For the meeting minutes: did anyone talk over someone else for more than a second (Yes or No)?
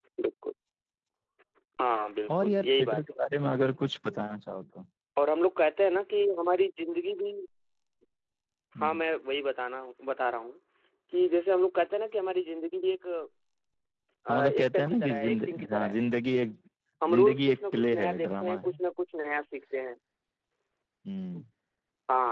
Yes